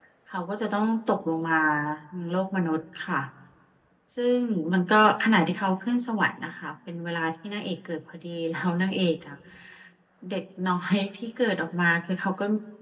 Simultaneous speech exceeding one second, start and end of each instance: none

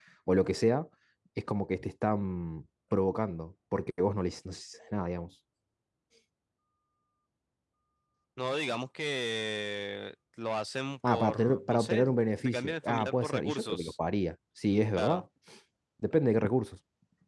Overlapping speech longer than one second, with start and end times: 11.1-13.9

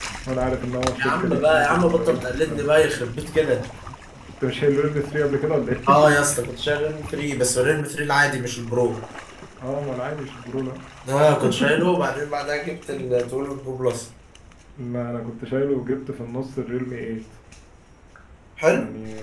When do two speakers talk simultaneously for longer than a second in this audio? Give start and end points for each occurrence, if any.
1.0-2.6

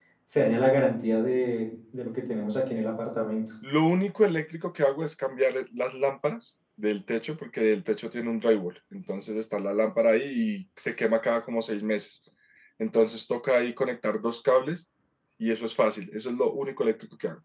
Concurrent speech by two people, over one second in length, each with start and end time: none

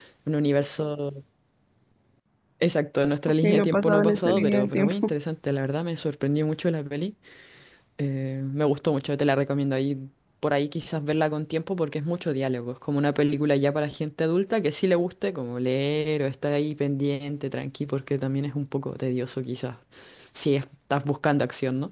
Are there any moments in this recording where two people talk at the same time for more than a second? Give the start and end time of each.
3.4-5.1

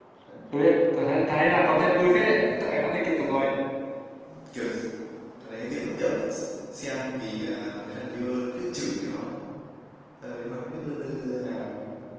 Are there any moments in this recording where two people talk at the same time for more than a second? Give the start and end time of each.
1.6-3.5

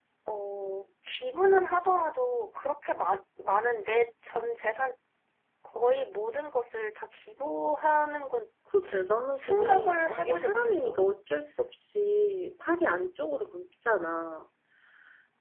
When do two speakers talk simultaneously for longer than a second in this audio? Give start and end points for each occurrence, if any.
9.3-11.0

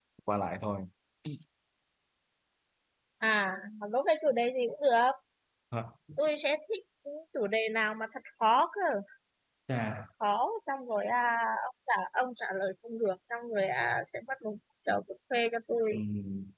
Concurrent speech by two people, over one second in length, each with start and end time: none

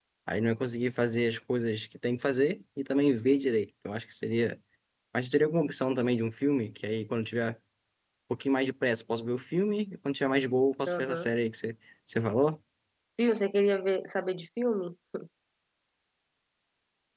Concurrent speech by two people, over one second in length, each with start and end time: none

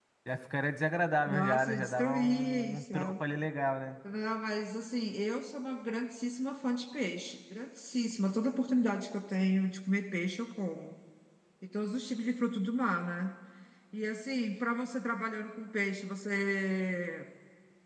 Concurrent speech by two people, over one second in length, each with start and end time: 1.3-3.1

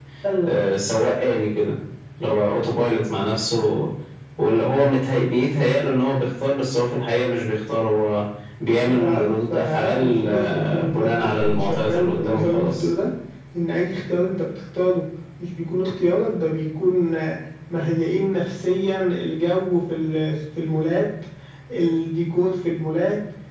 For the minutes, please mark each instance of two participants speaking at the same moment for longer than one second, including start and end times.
8.8-12.8

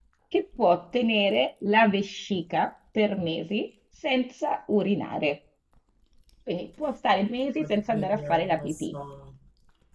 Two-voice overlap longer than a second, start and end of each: 7.6-8.8

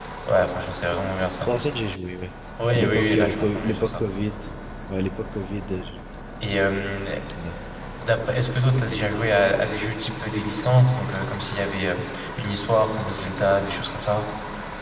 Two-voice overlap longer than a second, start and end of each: 2.7-4.0

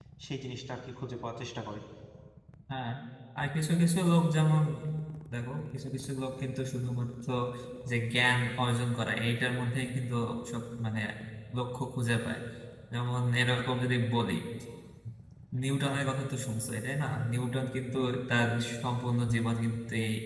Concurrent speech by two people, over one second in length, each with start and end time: none

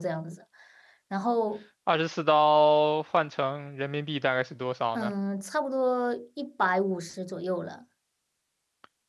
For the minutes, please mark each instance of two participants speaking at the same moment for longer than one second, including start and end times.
none

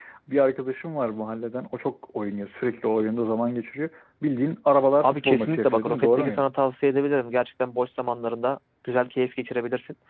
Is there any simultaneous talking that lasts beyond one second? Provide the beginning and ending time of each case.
5.0-6.5

